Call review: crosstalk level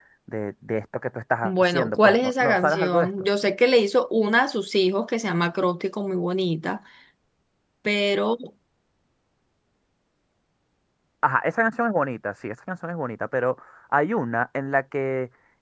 present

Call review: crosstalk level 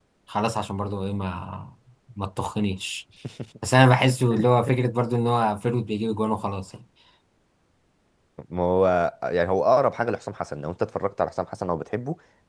none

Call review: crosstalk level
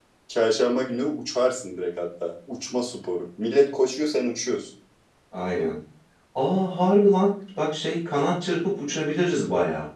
none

